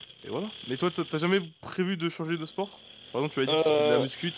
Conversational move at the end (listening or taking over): listening